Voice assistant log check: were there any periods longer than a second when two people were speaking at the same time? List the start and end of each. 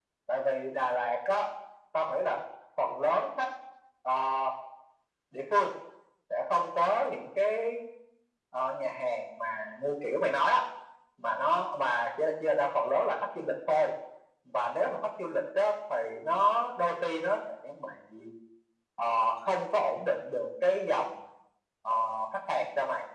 none

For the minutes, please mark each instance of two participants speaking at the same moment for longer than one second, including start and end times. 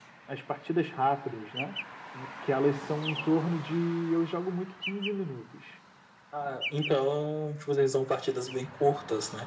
none

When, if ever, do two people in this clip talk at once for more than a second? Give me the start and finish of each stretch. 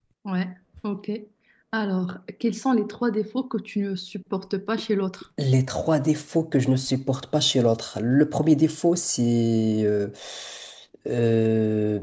none

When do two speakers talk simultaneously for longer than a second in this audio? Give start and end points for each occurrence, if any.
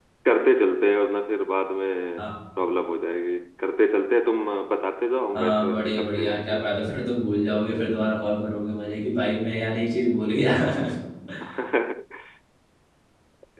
5.3-6.8

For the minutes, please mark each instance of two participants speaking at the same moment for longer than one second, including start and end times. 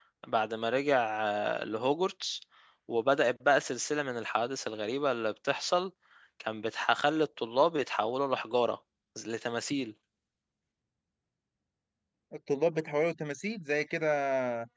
none

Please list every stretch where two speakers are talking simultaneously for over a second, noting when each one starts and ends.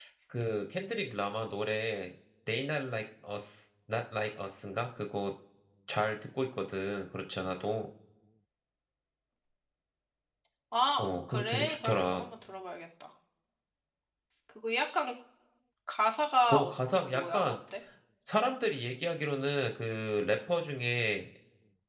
11.0-12.2

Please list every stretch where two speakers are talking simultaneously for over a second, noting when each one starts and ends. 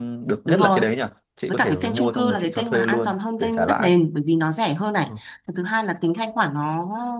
1.5-3.9

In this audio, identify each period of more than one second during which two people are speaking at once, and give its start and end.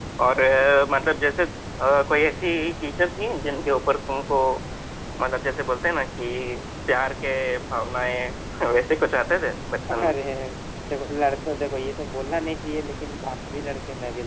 none

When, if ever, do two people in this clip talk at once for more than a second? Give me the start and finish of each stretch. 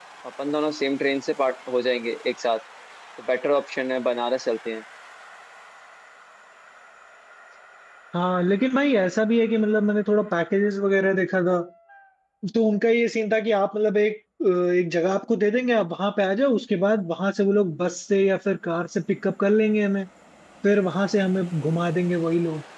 none

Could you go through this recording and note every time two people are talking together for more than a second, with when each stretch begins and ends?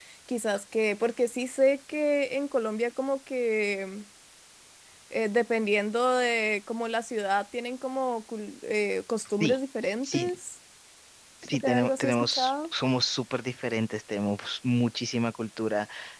11.5-12.7

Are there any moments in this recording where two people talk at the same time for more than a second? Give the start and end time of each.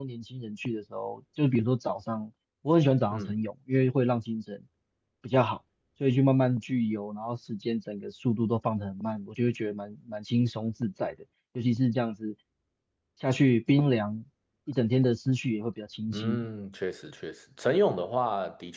none

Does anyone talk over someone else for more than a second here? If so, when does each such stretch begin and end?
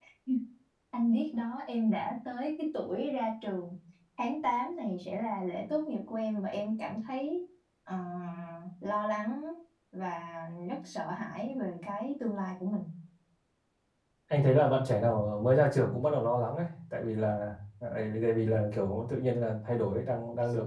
none

